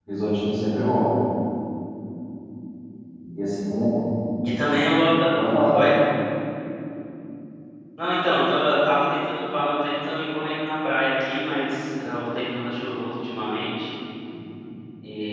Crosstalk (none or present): none